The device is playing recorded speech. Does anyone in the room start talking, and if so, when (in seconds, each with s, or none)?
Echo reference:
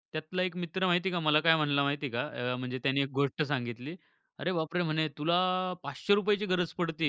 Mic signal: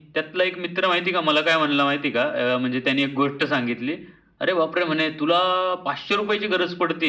none